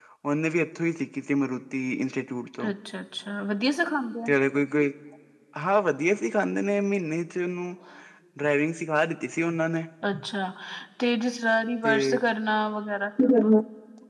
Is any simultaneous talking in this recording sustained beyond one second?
No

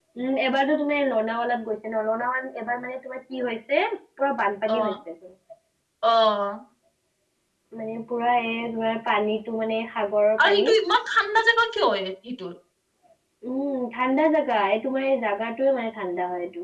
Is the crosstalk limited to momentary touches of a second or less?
Yes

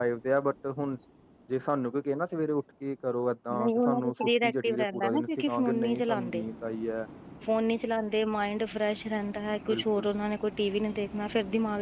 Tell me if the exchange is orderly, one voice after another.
No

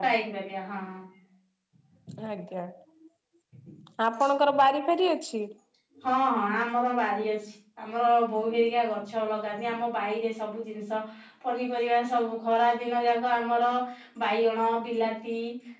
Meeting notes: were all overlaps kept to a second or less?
Yes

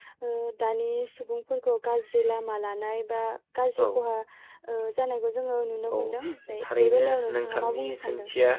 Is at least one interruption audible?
Yes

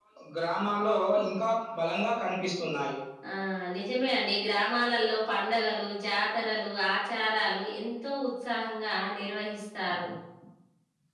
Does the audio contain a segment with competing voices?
No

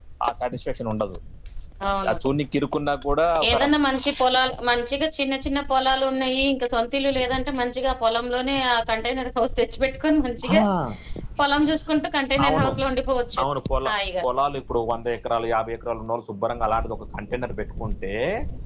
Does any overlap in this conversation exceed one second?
No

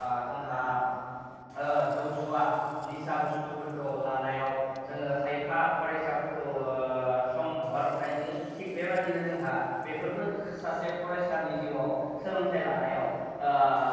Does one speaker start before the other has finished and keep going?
No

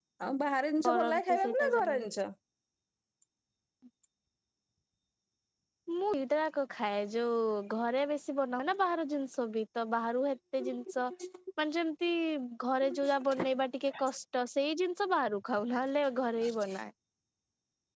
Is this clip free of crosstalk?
No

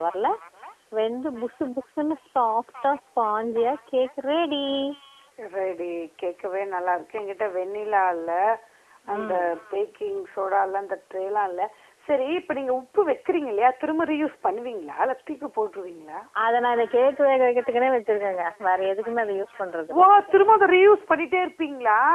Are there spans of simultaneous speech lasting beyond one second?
No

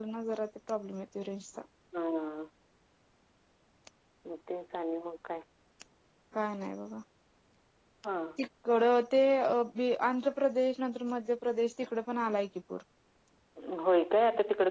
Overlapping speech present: No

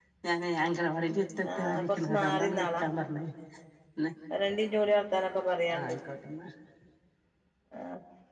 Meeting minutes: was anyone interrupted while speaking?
Yes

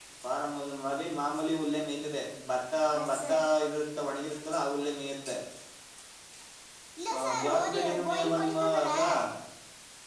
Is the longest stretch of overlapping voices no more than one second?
No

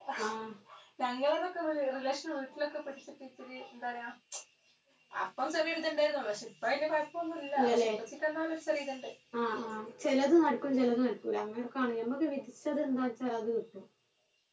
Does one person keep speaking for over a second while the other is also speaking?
No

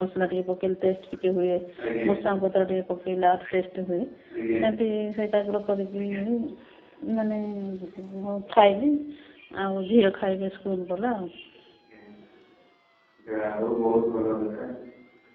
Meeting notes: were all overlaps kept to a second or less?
Yes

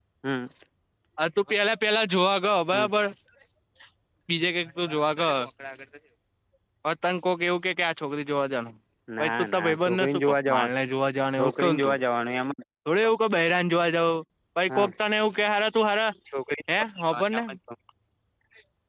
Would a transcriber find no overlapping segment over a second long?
No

